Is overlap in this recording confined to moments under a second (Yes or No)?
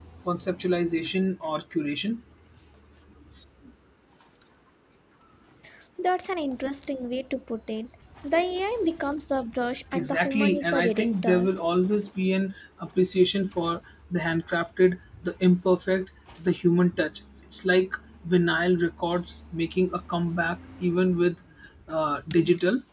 No